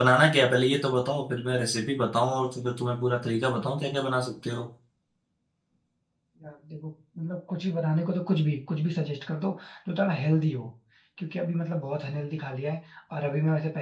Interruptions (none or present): none